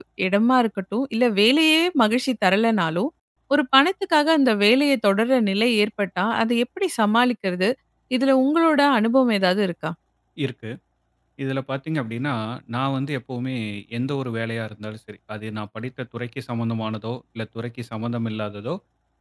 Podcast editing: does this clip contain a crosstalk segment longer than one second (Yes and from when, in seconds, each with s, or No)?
No